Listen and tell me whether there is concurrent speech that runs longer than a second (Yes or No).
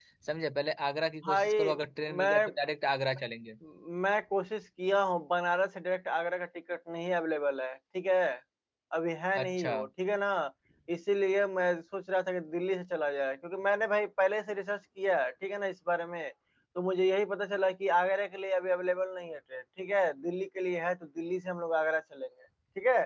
No